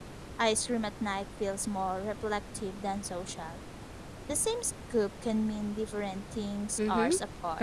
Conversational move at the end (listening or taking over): taking over